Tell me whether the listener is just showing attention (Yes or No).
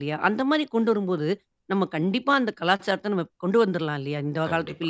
No